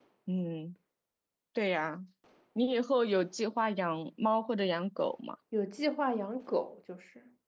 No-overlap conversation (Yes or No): Yes